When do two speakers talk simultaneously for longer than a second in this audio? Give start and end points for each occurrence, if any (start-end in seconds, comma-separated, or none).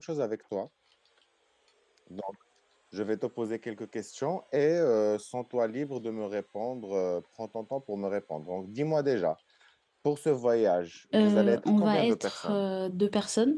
11.1-12.6